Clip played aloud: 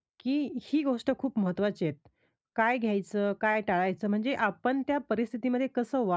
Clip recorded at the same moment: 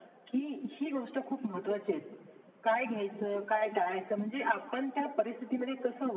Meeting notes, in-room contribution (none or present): none